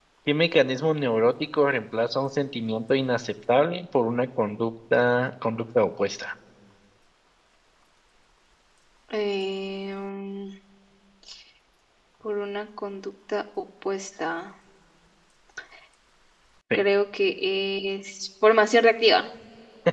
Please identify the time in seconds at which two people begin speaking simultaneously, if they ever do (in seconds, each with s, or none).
none